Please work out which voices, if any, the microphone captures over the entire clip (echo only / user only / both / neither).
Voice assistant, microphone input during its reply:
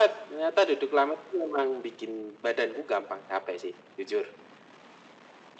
echo only